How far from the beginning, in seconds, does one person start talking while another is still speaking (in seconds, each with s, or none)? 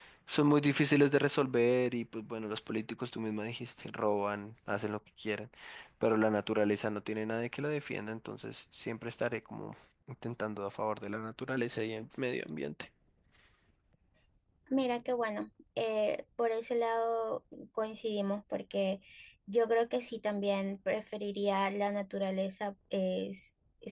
none